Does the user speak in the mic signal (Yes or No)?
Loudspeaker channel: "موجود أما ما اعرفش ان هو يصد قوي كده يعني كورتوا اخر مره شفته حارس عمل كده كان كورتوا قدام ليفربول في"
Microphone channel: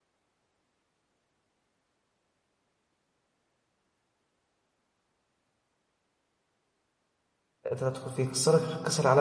Yes